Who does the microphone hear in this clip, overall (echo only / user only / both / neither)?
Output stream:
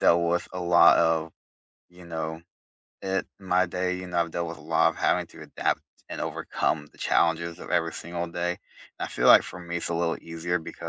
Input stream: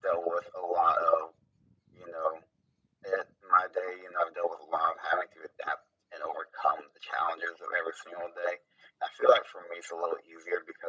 echo only